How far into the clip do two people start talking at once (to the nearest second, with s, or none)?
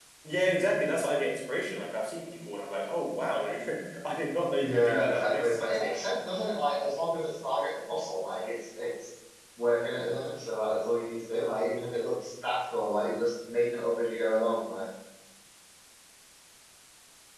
5 s